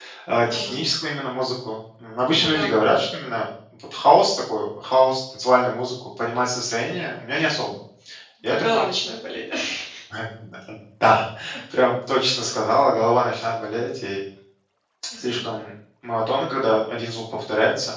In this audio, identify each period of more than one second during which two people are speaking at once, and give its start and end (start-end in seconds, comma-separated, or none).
none